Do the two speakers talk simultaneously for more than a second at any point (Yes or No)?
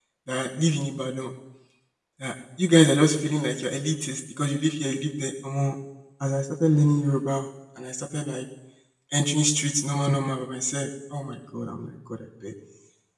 No